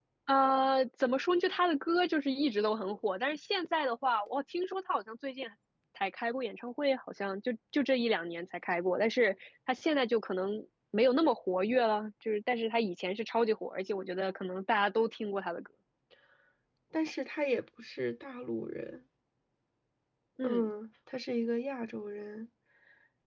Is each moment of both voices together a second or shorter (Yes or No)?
Yes